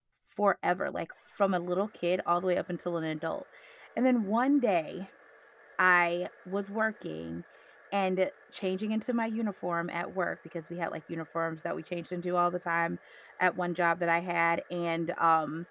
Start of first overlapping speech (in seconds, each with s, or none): none